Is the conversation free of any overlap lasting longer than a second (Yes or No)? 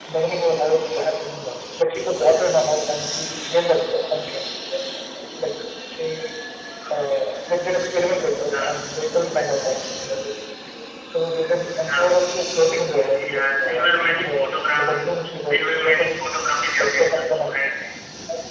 No